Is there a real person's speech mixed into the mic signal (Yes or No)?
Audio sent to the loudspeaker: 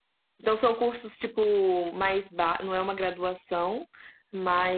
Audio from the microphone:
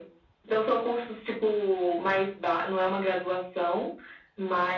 No